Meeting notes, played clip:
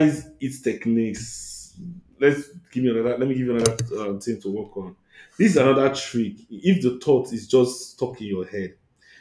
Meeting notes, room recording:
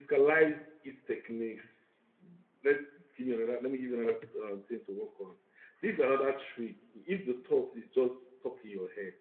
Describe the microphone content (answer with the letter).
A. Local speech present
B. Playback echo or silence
B